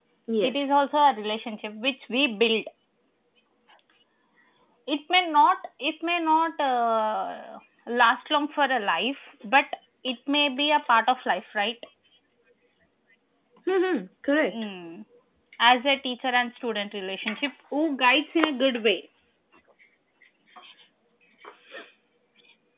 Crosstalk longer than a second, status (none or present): none